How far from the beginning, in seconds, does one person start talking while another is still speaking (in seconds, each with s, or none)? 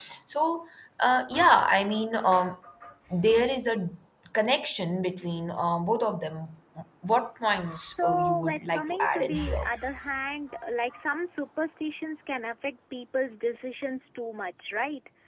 8.0 s